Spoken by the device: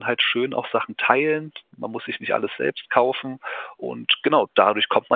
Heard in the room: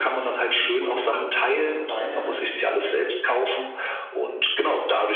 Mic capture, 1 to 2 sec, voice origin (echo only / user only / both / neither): both